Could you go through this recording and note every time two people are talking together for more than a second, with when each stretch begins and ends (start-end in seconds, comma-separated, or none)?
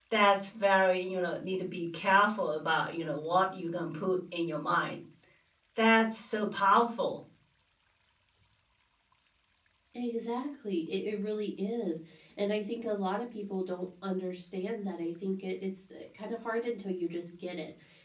none